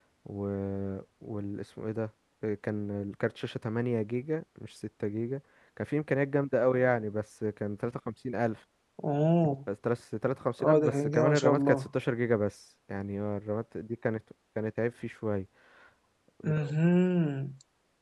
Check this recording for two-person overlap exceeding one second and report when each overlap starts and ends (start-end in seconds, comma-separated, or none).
10.6-11.9